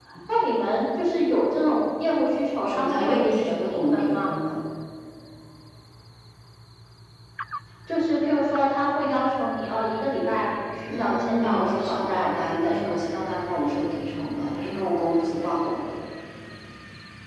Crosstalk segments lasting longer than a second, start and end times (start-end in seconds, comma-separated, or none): 2.6-4.3, 10.9-12.9